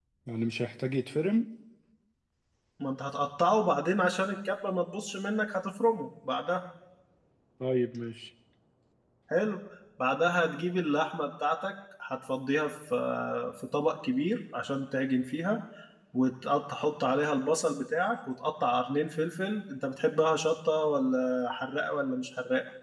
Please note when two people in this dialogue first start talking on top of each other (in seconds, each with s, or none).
none